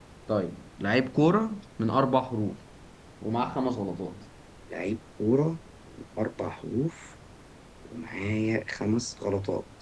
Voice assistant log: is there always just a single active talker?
Yes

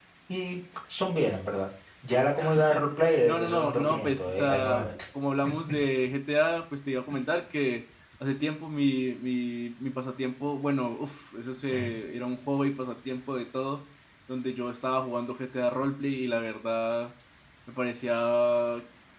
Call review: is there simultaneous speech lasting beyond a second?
Yes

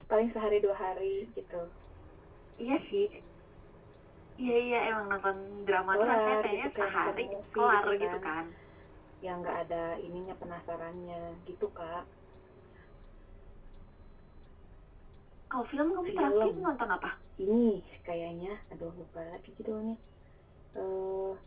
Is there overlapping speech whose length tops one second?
Yes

